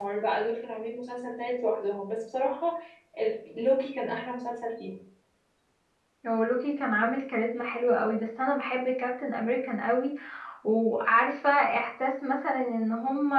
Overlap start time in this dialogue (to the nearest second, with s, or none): none